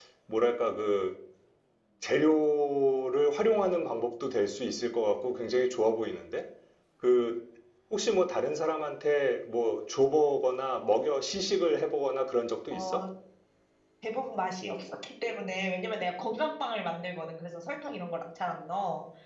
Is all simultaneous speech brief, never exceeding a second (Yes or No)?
Yes